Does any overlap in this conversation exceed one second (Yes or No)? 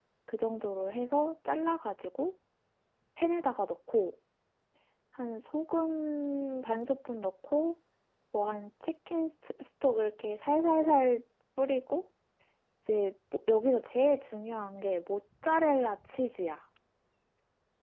No